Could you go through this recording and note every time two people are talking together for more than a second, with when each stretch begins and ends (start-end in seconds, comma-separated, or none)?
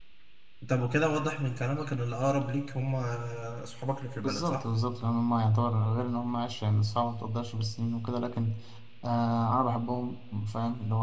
none